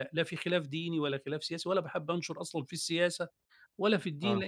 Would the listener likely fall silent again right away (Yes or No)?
Yes